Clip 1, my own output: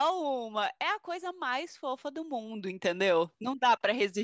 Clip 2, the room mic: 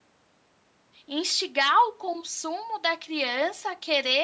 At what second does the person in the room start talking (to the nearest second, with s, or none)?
1 s